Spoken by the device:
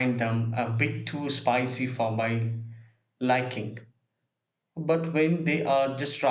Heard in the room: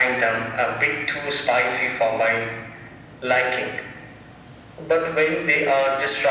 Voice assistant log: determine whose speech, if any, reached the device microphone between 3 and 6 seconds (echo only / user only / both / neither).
echo only